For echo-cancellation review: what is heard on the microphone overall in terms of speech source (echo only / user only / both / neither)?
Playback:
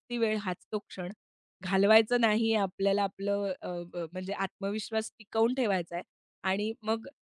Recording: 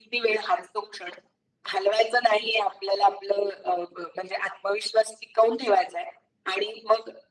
echo only